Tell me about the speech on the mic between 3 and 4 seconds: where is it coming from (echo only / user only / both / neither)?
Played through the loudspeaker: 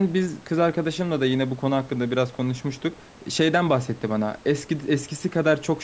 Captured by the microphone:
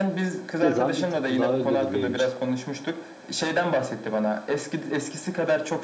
echo only